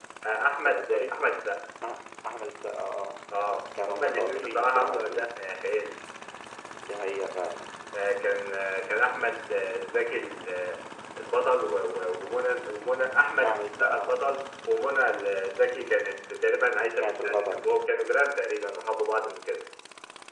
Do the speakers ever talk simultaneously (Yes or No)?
Yes